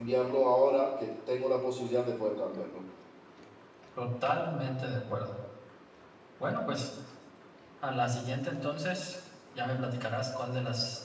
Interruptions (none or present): none